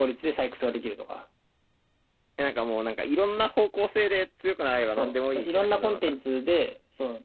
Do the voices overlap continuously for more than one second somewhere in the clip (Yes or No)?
Yes